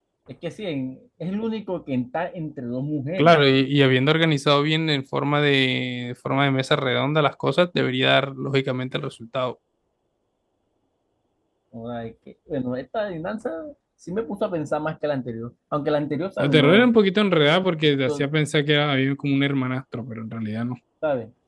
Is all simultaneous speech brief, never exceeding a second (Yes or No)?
Yes